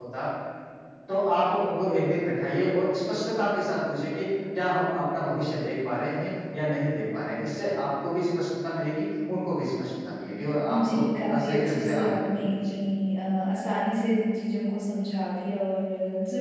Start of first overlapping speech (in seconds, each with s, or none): 10.7 s